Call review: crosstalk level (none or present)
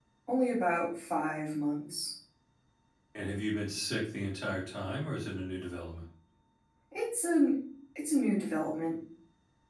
none